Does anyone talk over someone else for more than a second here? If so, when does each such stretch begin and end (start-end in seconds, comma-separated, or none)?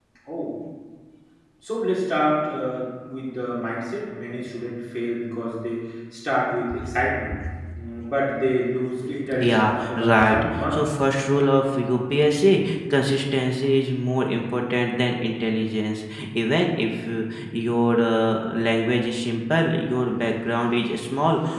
9.4-10.8